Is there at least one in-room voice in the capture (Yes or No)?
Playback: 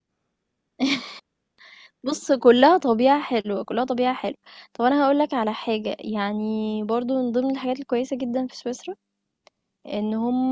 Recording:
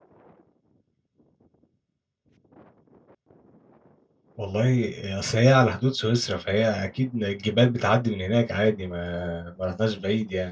Yes